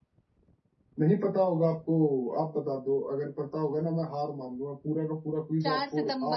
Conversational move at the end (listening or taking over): taking over